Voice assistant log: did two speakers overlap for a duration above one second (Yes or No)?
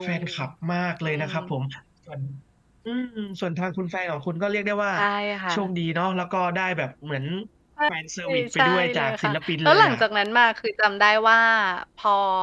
Yes